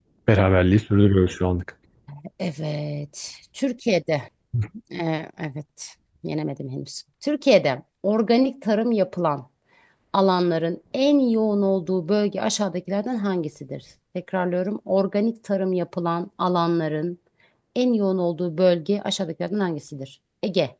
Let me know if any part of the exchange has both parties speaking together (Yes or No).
No